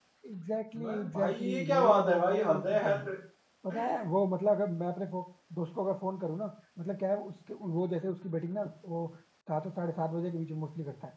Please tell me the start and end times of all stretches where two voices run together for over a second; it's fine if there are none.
0.8-3.0

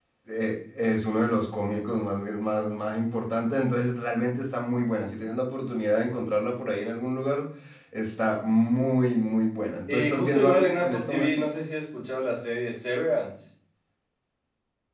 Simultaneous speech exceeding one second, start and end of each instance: 9.9-11.4

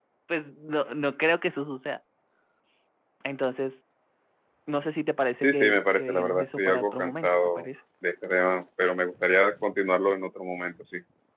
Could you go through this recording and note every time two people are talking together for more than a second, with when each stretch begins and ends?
5.4-7.7

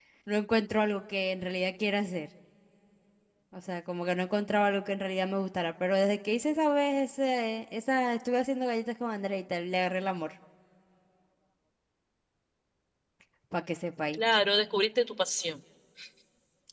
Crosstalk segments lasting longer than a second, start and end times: none

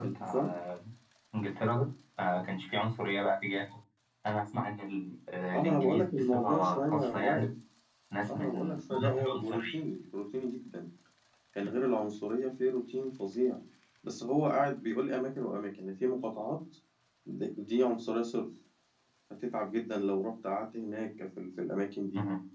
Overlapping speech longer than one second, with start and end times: 5.5-7.5, 8.2-9.8

